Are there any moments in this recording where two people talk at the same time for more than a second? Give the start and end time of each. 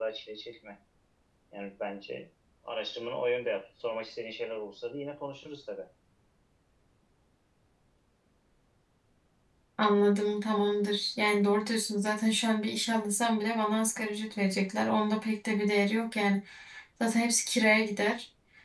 none

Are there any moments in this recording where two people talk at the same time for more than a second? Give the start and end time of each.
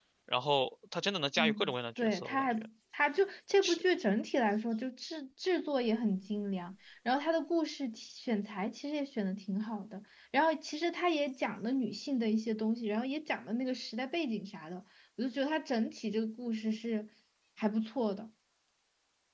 1.4-2.6

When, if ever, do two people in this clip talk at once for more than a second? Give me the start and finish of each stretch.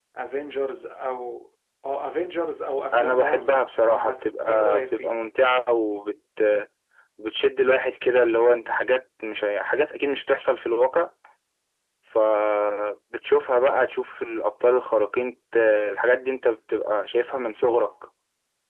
2.9-5.1

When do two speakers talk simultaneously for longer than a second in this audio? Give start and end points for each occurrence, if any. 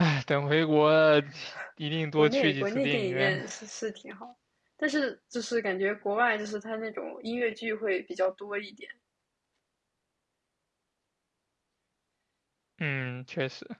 2.2-3.4

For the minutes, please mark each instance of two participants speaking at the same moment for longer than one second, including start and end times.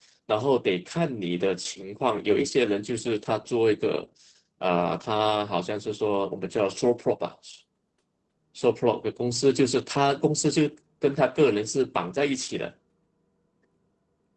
none

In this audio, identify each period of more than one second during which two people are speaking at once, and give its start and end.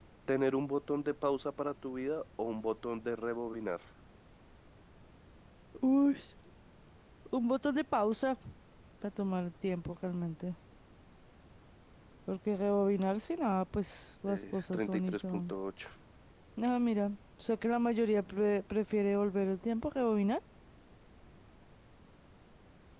14.3-15.5

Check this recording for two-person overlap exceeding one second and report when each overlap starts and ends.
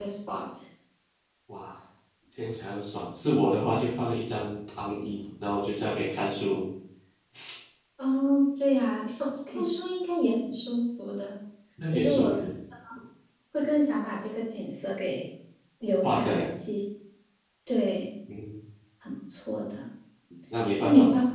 none

